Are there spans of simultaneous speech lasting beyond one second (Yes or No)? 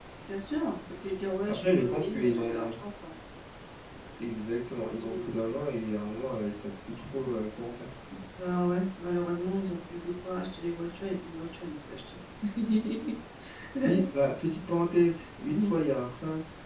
Yes